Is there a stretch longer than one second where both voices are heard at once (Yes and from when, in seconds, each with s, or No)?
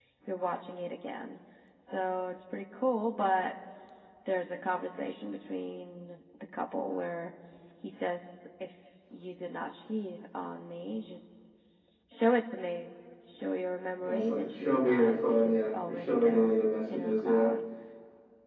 Yes, from 14.0 s